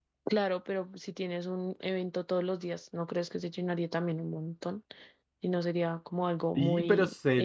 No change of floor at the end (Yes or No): No